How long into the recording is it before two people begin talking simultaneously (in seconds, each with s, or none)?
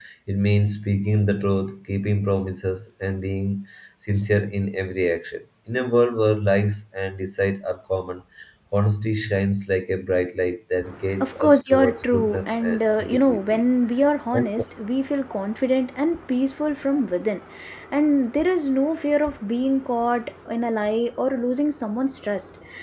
11.2 s